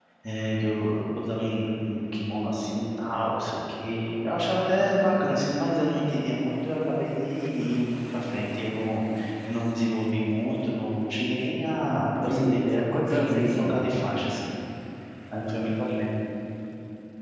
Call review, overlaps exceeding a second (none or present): present